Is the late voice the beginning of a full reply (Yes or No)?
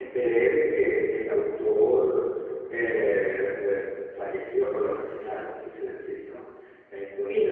Yes